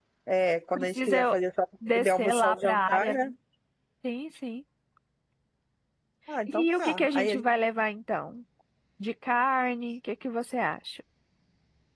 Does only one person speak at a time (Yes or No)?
No